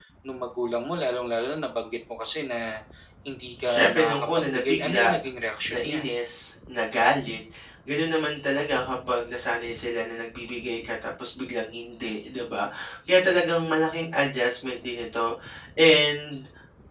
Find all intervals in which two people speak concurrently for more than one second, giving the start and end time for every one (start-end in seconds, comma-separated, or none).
3.6-5.1